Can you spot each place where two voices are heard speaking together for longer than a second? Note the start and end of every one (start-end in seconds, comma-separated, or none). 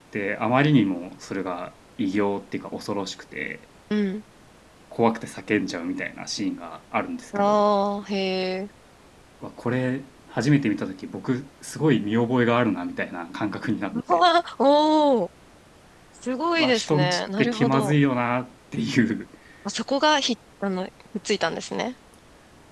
16.6-18.0